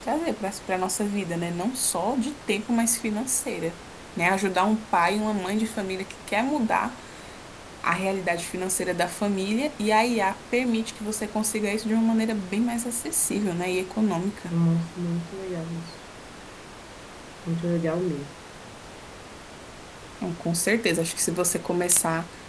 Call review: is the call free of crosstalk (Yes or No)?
Yes